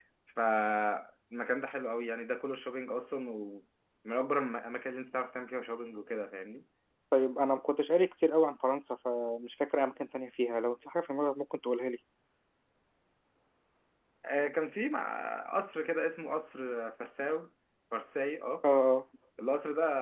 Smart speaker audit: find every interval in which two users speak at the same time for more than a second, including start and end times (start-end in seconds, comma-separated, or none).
none